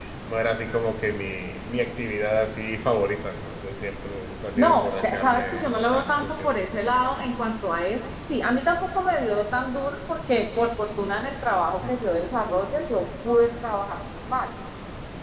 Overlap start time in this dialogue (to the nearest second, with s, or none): 5 s